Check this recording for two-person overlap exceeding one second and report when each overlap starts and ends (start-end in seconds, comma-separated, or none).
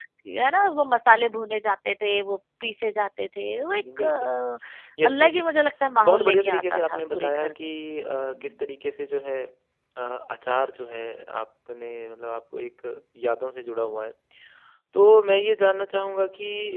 6.0-7.5